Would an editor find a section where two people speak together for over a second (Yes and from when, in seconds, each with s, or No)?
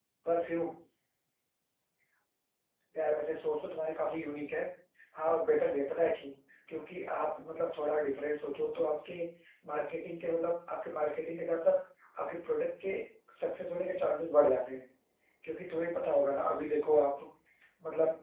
No